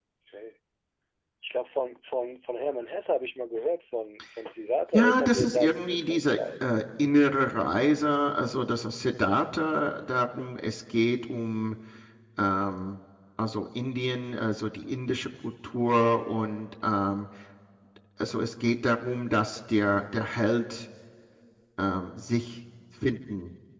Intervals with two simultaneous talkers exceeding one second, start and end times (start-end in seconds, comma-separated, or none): 4.9-6.6